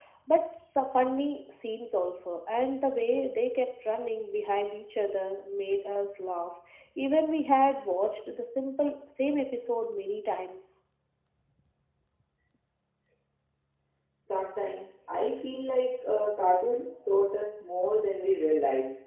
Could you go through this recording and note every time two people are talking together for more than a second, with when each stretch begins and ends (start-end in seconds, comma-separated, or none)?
none